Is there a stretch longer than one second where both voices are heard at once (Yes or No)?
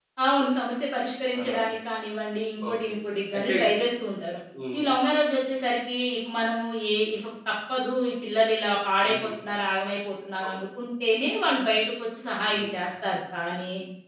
No